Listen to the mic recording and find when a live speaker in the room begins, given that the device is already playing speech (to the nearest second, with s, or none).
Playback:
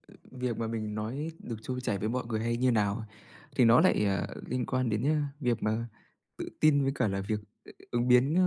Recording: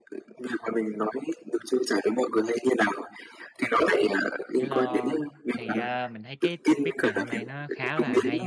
5 s